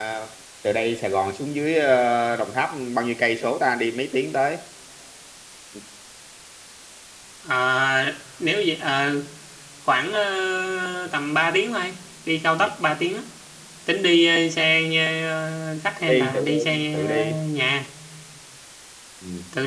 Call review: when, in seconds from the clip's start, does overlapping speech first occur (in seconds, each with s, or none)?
16.1 s